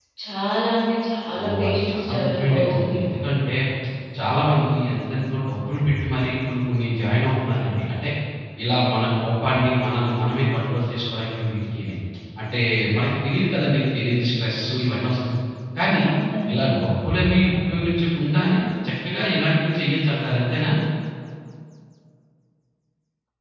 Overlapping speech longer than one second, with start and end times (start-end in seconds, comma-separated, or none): 1.4-3.0